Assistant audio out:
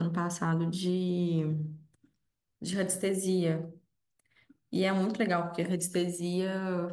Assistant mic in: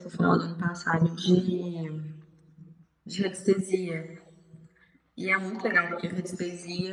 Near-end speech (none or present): none